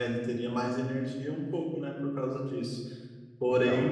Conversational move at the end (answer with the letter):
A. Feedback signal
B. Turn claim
A